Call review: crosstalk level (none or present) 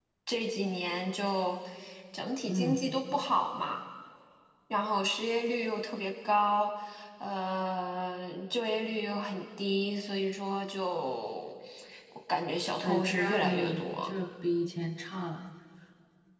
present